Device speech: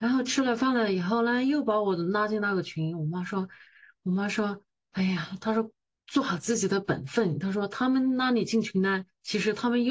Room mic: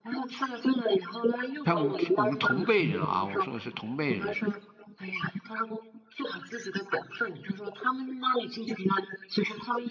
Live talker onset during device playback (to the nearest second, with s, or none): 2 s